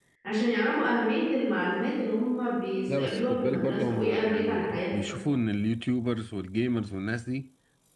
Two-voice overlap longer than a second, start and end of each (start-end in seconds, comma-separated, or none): 2.9-5.2